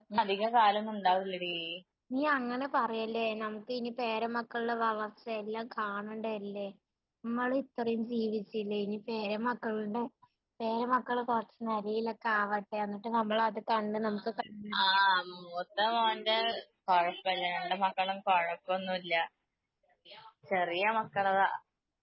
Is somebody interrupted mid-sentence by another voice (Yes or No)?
No